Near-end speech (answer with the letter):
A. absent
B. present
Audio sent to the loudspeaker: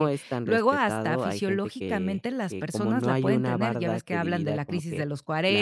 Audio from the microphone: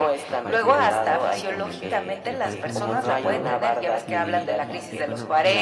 B